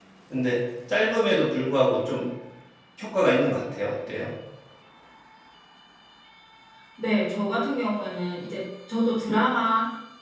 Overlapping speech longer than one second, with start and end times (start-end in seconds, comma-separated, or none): none